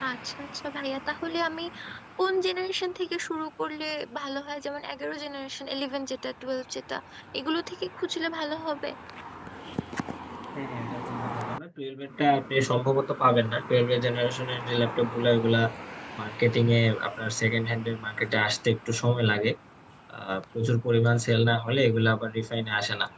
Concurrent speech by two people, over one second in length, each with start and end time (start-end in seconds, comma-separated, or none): none